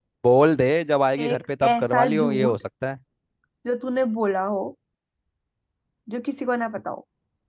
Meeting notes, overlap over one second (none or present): present